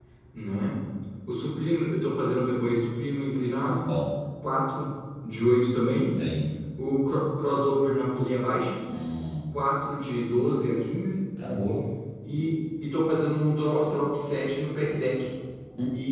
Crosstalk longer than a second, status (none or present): none